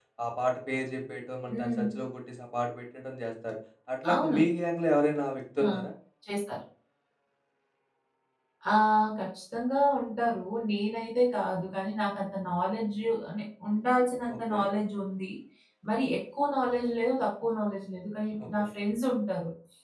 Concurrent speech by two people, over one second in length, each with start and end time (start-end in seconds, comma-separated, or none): none